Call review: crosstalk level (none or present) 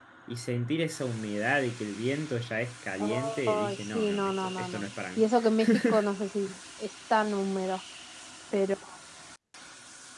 present